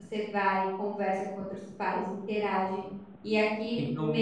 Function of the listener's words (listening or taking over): listening